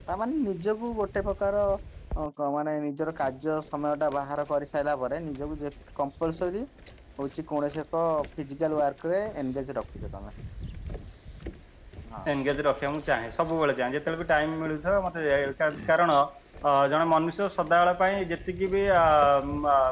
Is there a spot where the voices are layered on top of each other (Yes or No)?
No